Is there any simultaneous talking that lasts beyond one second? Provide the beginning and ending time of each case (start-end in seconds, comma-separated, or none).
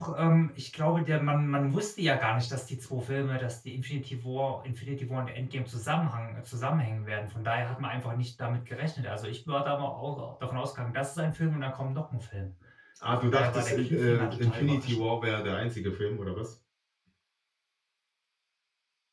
13.2-15.0